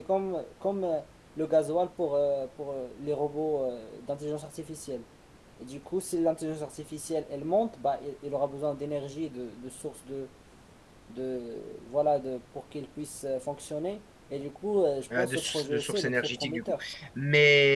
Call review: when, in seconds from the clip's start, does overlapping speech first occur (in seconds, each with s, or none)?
15.1 s